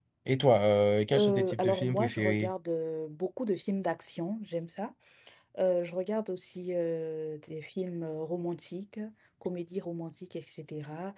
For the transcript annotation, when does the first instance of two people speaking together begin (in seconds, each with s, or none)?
1.2 s